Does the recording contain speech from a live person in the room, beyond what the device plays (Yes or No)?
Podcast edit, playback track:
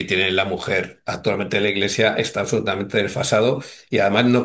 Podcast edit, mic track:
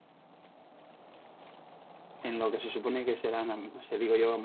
Yes